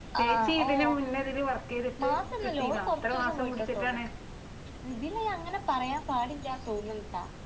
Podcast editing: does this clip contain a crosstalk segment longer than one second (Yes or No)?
Yes